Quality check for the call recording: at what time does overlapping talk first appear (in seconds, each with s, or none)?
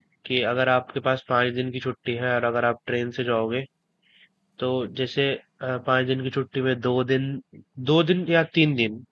none